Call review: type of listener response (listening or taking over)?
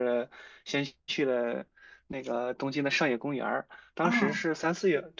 listening